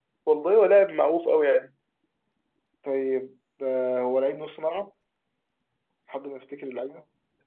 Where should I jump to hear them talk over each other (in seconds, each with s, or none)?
none